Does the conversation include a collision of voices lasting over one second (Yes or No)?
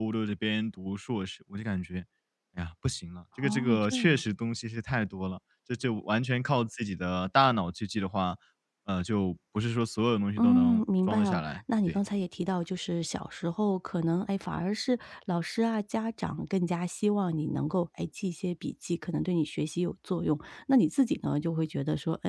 Yes